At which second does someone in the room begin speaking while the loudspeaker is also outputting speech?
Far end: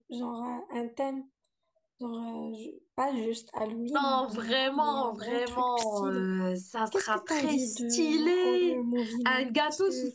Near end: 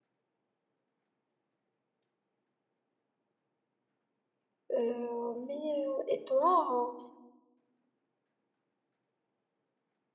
4.7 s

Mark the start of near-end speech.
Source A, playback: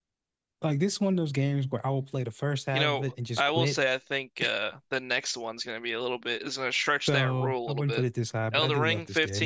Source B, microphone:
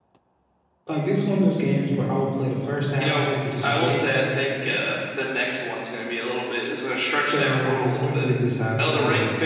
none

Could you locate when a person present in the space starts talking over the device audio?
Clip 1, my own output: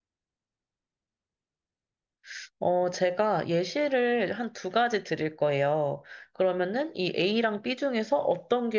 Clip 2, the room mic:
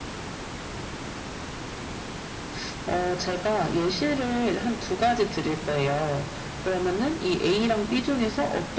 none

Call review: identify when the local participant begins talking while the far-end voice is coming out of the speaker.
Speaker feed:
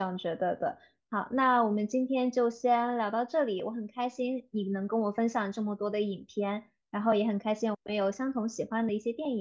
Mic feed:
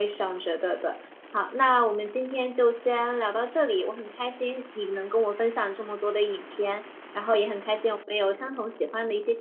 none

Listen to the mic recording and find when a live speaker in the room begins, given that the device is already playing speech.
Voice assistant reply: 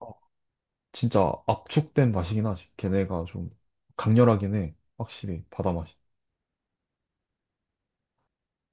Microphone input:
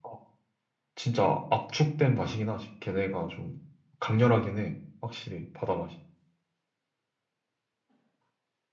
none

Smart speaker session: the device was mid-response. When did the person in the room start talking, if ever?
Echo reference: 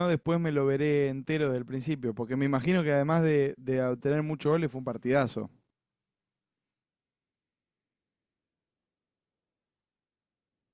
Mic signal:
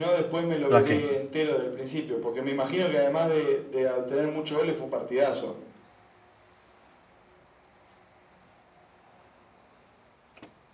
0.7 s

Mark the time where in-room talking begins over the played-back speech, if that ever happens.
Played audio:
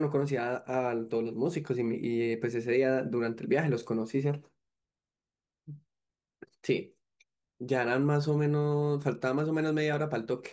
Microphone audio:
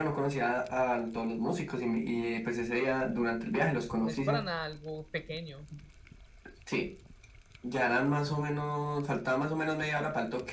4.0 s

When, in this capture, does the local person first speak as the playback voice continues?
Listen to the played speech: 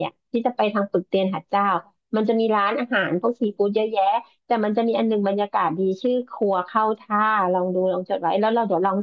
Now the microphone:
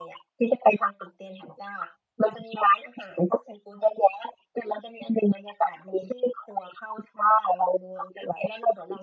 none

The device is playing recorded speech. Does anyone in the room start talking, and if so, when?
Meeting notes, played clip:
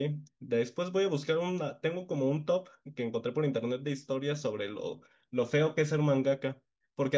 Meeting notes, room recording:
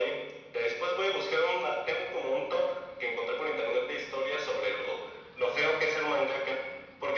none

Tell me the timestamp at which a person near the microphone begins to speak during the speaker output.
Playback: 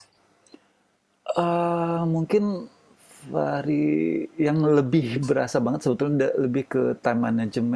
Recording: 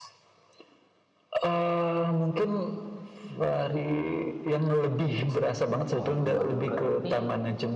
6.0 s

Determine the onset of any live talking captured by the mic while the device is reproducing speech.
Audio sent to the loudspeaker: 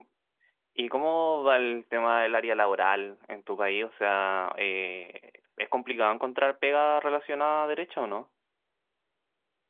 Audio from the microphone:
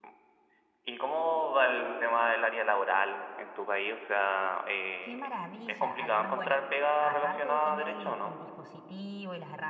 5.0 s

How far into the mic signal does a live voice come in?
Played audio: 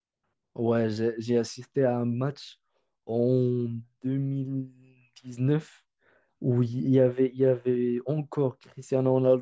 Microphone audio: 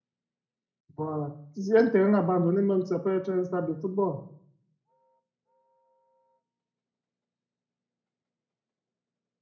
0.9 s

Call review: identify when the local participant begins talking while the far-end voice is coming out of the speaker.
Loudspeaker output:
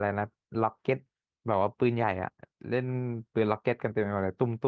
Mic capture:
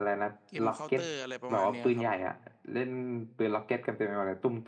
0.5 s

